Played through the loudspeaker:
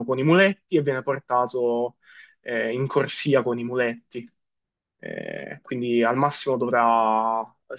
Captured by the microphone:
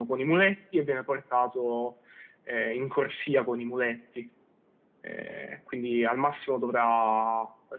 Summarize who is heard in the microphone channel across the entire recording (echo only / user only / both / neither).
echo only